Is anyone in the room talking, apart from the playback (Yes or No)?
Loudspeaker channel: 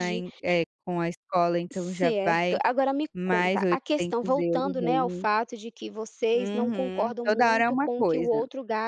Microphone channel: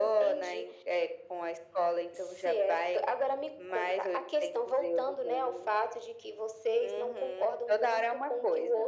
No